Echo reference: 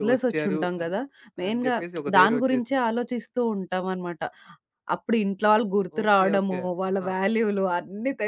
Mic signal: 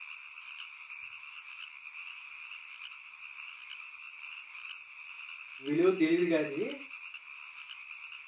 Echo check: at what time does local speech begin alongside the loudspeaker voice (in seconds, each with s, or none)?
5.7 s